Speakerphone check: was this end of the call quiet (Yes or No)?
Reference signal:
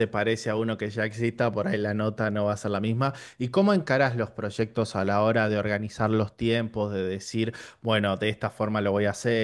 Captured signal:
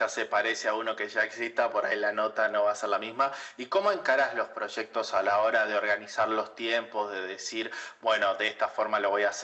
Yes